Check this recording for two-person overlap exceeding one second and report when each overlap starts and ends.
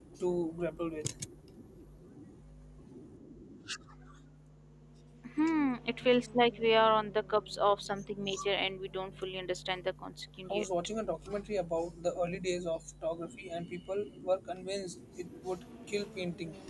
none

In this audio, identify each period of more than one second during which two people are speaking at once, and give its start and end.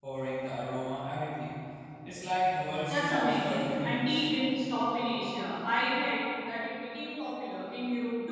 2.9-4.2

